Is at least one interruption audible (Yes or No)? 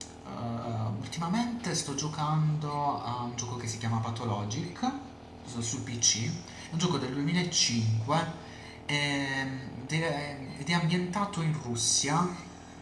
No